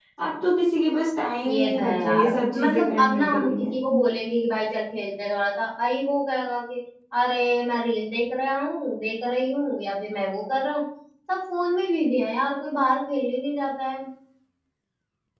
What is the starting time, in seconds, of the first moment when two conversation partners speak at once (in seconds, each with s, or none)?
1.4 s